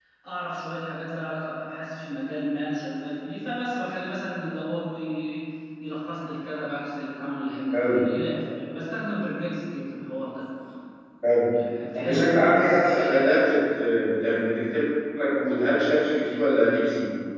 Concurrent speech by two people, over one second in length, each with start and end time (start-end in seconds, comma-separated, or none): 11.9-13.6